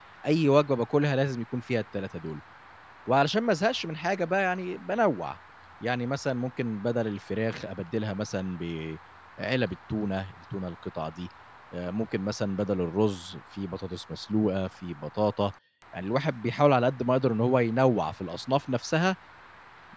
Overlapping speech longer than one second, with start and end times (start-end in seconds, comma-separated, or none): none